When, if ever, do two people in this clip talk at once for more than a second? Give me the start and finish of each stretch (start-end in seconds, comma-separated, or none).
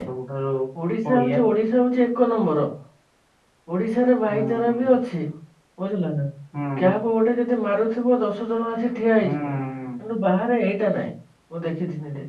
none